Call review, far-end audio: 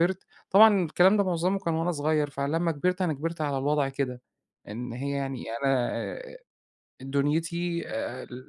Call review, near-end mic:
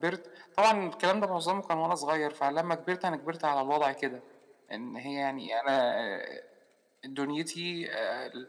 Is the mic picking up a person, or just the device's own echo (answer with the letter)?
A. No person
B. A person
A